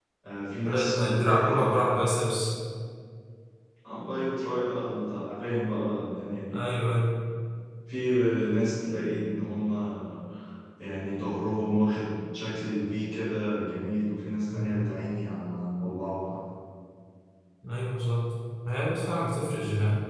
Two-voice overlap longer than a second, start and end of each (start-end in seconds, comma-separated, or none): 0.7-2.0